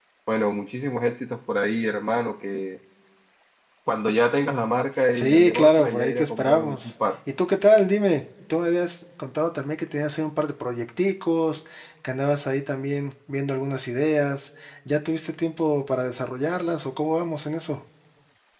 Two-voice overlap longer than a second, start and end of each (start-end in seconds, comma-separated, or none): 5.1-6.9